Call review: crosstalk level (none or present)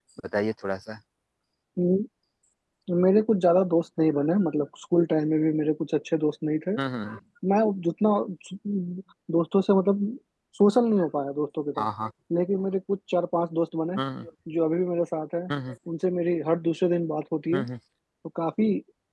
none